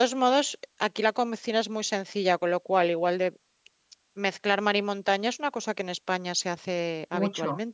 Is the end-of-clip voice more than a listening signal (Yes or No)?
Yes